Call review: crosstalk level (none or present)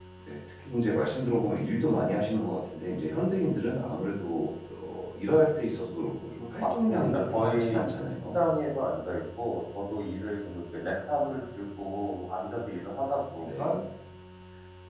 present